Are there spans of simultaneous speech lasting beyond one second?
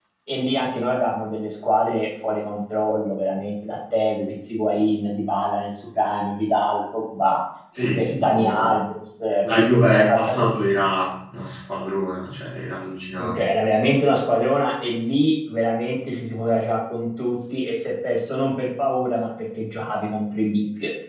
Yes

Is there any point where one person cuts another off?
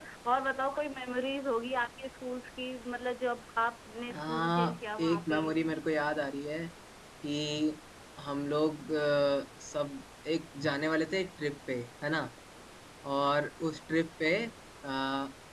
Yes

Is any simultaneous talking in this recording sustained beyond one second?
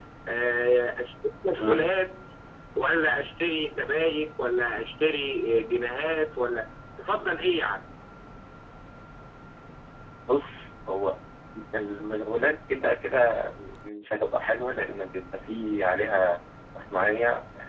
No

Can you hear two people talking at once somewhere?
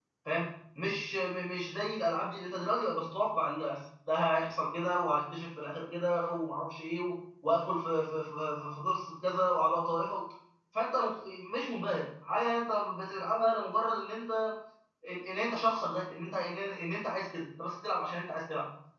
No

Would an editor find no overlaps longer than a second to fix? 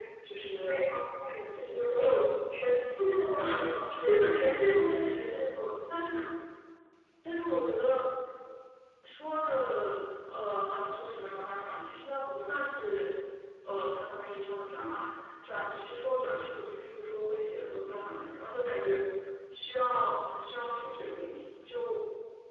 Yes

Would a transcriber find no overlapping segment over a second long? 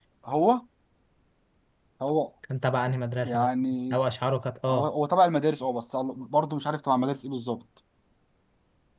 Yes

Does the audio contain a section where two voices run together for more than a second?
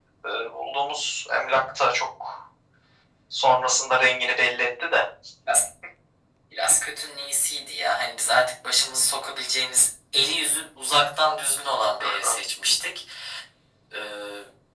No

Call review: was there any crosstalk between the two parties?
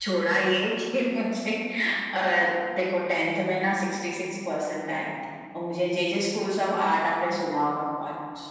No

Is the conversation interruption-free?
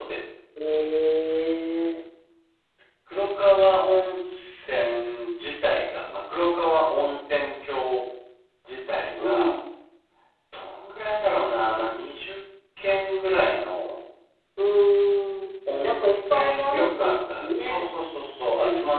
No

